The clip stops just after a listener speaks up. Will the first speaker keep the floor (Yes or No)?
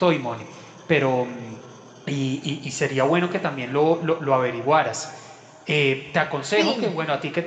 Yes